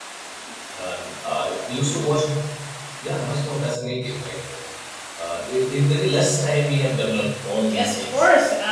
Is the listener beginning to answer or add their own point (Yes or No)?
Yes